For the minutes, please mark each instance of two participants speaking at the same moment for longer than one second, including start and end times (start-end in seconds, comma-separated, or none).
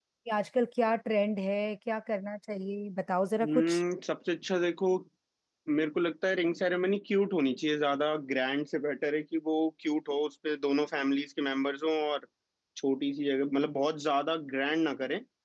none